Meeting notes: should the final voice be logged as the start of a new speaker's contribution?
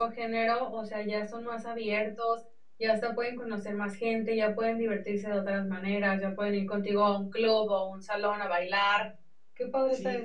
Yes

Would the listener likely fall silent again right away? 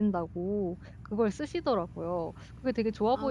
No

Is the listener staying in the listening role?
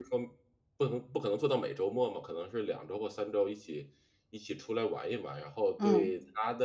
Yes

